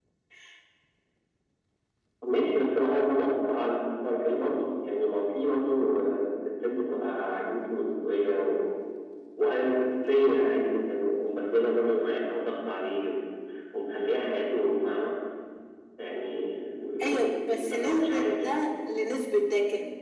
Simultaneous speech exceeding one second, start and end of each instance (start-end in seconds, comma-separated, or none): 17.0-18.4